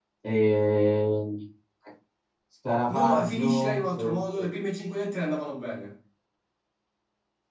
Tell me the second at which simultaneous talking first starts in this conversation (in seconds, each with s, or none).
3.0 s